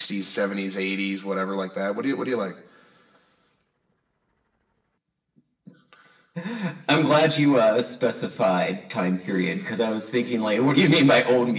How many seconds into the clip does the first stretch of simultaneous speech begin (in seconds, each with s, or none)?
none